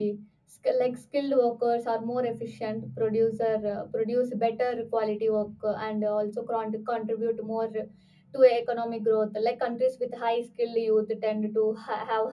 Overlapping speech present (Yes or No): No